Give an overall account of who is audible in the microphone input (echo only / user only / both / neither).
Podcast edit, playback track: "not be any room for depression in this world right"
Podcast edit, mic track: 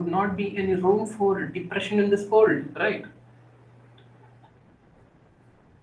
echo only